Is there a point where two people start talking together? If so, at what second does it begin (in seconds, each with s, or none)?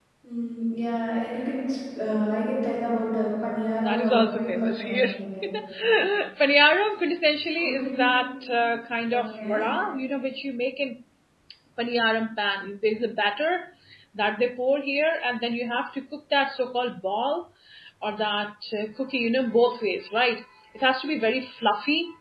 3.9 s